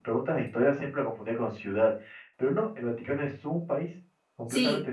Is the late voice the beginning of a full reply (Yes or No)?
Yes